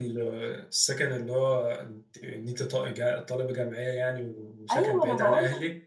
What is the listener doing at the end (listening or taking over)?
taking over